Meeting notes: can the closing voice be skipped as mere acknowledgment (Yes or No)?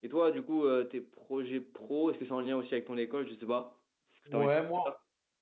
No